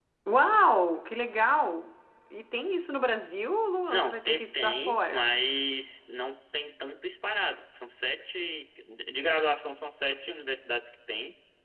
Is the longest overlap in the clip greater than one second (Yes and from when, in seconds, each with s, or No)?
Yes, from 3.9 s